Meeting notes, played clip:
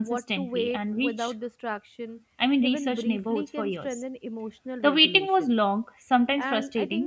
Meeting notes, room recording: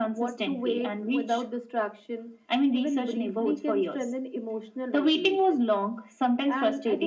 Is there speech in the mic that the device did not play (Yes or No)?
No